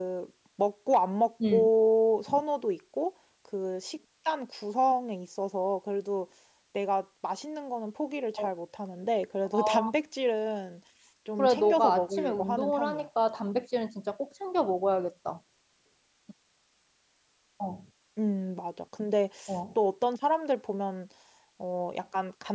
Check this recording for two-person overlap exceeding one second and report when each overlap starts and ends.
11.4-13.1

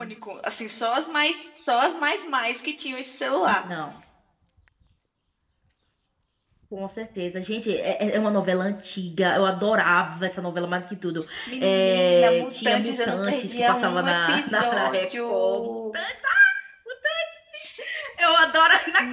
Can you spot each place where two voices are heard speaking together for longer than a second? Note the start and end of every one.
11.5-16.0

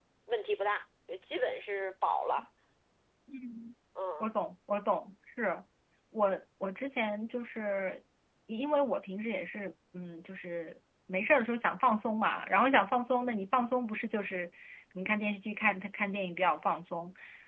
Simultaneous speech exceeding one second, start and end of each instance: none

